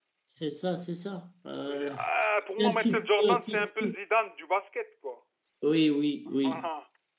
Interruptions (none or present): present